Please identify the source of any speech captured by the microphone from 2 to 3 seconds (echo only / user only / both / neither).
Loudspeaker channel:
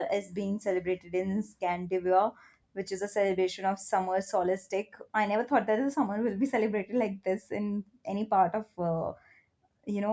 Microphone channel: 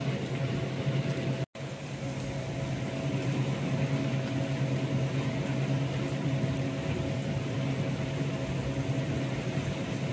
neither